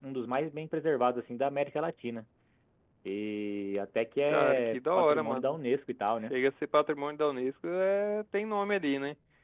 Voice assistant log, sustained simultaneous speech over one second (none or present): present